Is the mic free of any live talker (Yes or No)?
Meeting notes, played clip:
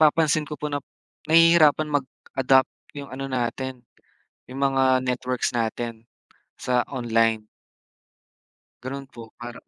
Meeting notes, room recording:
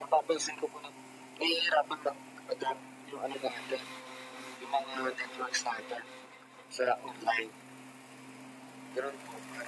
Yes